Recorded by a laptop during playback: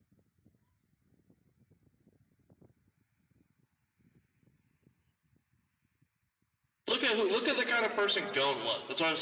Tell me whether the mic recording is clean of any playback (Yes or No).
Yes